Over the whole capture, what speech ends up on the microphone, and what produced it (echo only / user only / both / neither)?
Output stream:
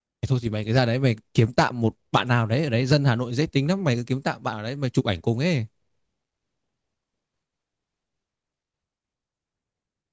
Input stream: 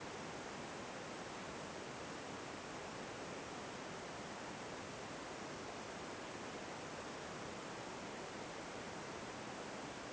neither